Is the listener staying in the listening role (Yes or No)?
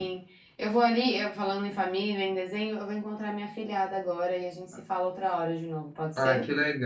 No